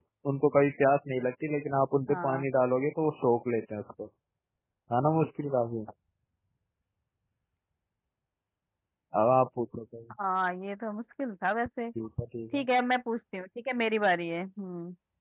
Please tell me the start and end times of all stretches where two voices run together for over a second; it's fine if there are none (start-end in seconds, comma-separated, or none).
none